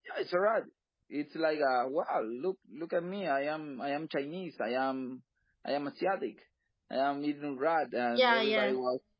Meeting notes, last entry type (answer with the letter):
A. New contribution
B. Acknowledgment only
B